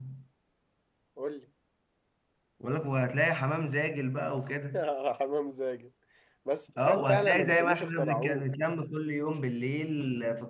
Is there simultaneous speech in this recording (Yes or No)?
Yes